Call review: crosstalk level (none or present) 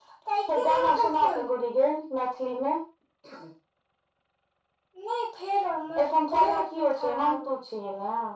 present